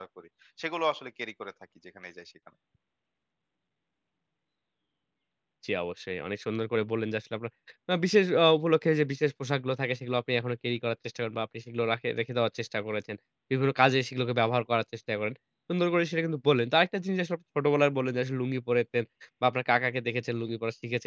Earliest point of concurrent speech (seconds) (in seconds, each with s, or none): none